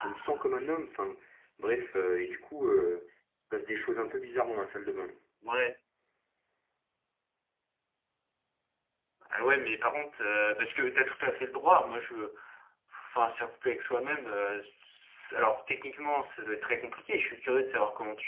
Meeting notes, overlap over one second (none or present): none